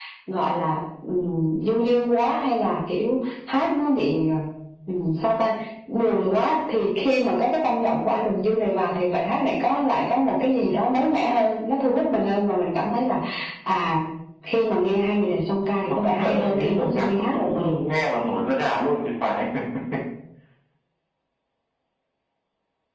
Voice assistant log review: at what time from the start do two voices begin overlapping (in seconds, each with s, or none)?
15.9 s